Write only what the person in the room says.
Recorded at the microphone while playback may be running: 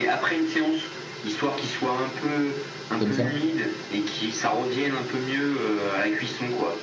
C'est comme ça.

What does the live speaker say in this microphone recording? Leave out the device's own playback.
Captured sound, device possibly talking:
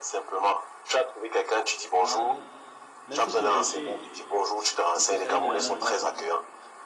Ah, donc, même si tu es gaucher, il faut il faut saluer de la main droite, c'est ça?

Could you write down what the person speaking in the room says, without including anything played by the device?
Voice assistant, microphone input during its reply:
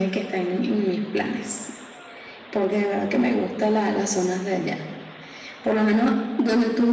none

